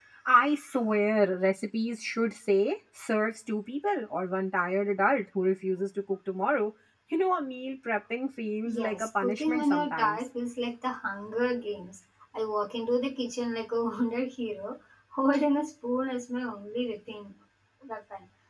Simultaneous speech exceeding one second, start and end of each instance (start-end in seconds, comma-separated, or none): 8.6-10.3